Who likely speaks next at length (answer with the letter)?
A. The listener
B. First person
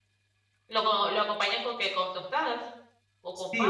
A